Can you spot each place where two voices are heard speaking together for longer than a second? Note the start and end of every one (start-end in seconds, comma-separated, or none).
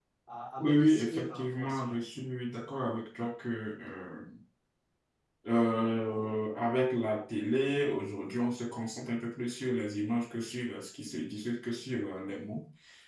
0.6-2.0